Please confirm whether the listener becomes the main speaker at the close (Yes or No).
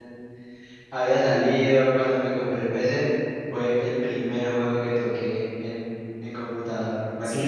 Yes